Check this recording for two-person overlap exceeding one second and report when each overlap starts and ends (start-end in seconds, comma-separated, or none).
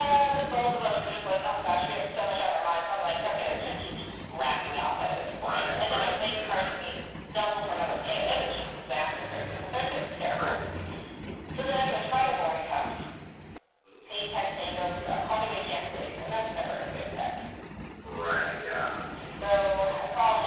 5.4-6.7